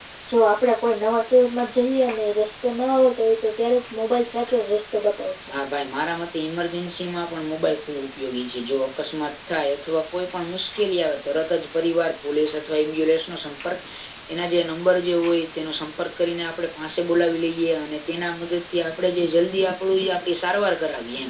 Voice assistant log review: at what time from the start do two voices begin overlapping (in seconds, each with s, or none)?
none